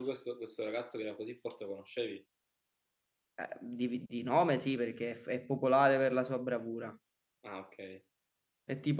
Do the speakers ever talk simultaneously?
No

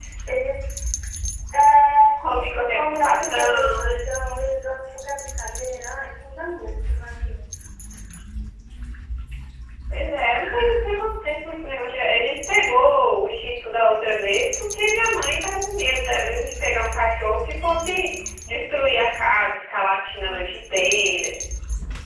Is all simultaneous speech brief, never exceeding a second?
No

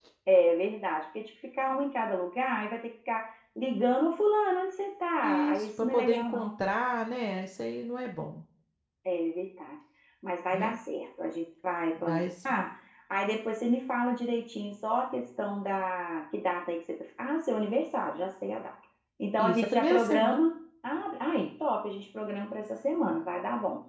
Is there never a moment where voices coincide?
No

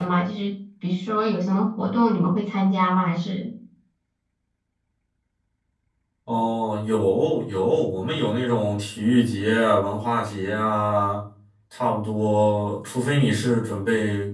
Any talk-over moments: No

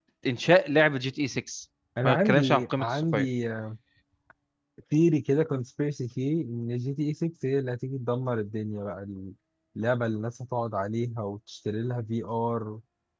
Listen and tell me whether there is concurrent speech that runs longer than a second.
Yes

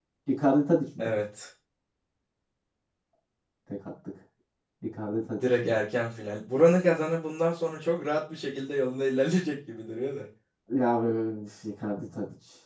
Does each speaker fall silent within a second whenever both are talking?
Yes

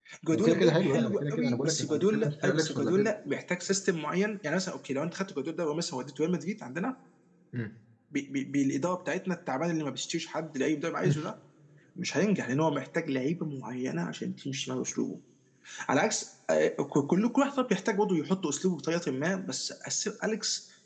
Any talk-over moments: Yes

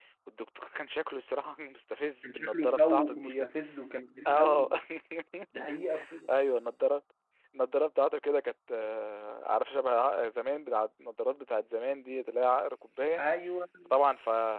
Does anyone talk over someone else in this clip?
Yes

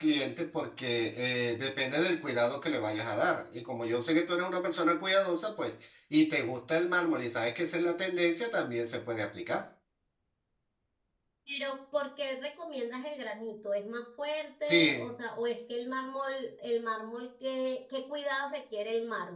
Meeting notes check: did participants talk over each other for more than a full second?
No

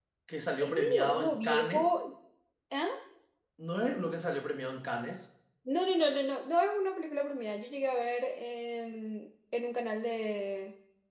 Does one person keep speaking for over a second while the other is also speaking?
Yes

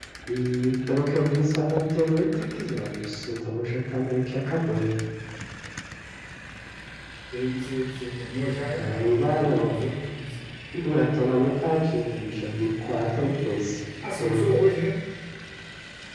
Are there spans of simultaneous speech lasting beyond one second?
No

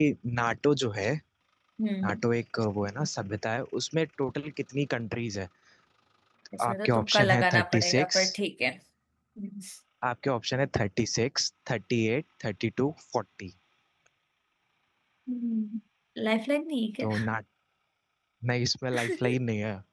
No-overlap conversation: No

